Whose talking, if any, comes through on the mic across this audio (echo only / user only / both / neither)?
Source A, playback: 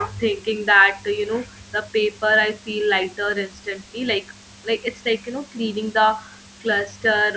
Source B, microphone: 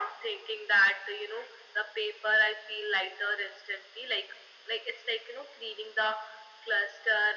echo only